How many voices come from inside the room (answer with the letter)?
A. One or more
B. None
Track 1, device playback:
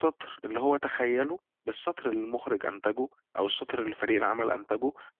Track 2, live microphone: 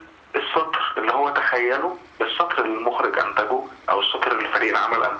B